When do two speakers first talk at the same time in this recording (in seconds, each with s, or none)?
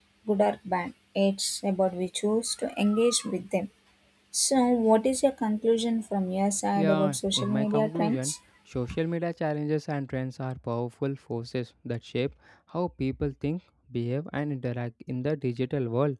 6.8 s